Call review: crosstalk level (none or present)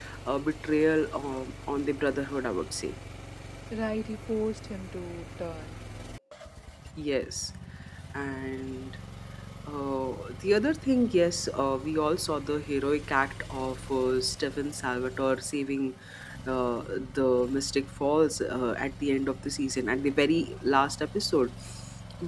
none